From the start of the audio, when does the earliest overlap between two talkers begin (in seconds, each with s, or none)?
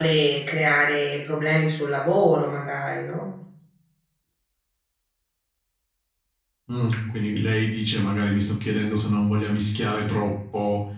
none